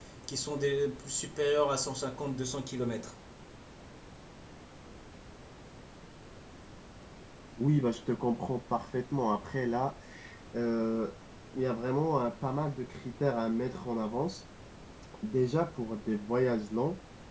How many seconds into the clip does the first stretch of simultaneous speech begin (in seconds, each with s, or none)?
none